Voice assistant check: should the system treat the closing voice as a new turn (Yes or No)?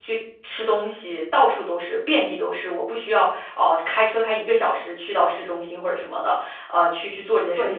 Yes